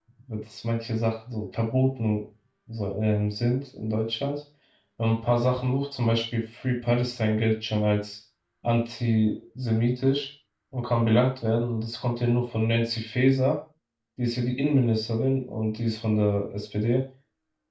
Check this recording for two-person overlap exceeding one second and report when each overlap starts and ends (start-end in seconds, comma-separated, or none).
none